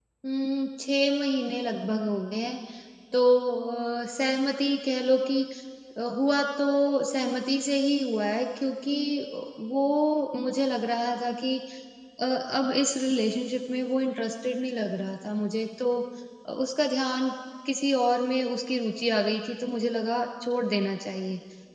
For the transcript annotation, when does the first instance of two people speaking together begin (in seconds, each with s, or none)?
none